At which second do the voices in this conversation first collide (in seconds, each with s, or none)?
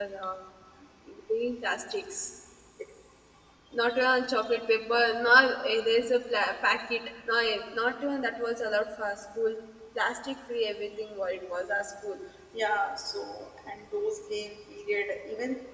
none